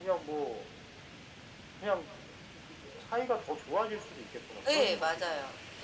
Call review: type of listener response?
taking over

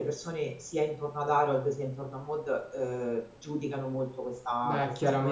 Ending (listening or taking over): taking over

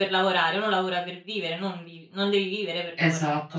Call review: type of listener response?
taking over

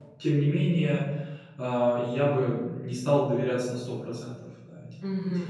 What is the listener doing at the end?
taking over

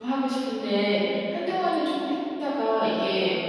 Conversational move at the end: listening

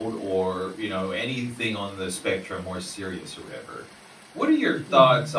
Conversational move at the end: listening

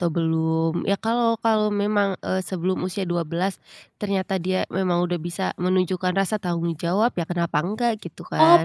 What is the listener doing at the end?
taking over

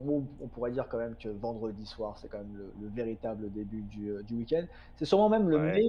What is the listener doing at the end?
listening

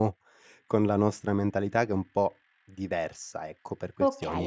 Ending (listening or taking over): taking over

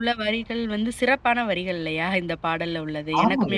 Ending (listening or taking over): taking over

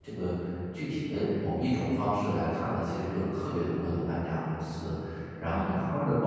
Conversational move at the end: listening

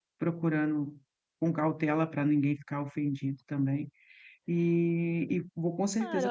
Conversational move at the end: taking over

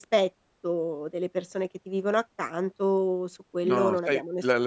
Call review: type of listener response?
taking over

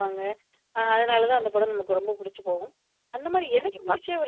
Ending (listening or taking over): listening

